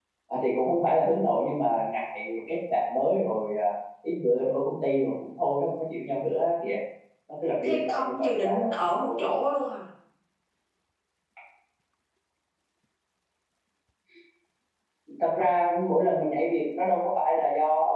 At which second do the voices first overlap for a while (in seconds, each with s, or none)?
7.6 s